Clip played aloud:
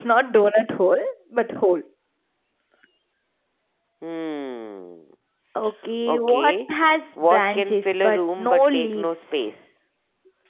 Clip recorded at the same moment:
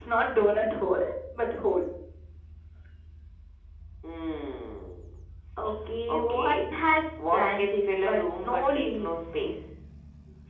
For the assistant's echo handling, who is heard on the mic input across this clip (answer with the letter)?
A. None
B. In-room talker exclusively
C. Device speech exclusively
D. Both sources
C